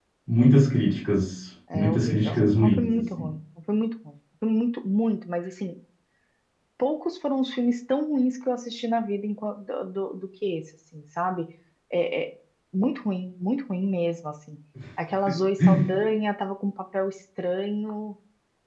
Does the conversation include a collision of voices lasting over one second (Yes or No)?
Yes